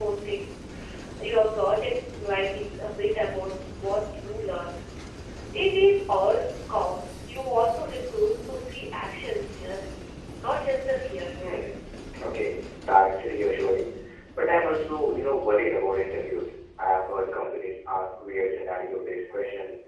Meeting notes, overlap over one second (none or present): none